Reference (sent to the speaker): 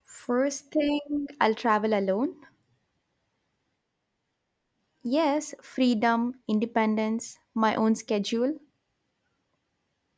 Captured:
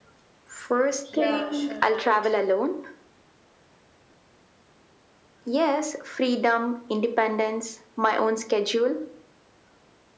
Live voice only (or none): Yeah, sure, right.